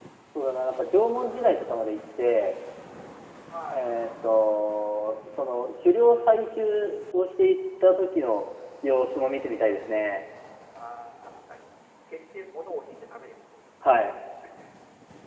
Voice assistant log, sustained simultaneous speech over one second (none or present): none